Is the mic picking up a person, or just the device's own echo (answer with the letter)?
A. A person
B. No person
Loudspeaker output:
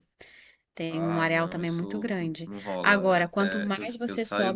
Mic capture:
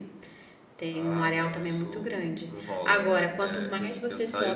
B